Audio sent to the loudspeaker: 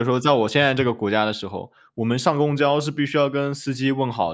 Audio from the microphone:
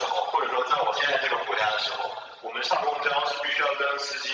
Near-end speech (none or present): none